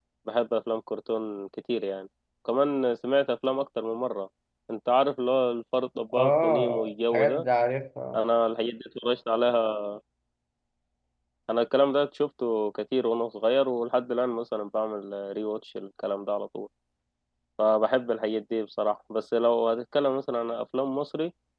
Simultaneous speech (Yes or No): Yes